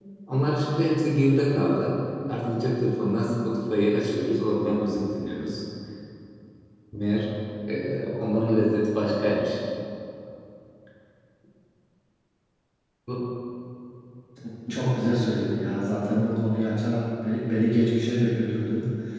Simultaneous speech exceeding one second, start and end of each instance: none

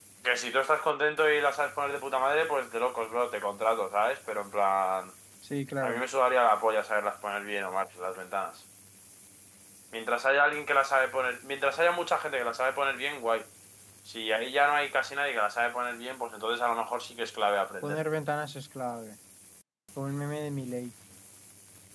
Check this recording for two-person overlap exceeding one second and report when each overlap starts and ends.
none

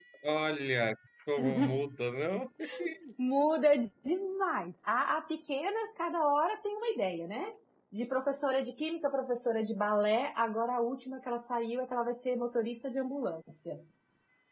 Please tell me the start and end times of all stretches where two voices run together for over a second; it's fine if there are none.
none

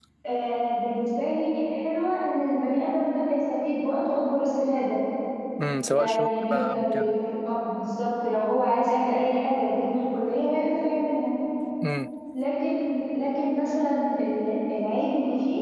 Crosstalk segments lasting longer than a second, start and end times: 5.9-7.2

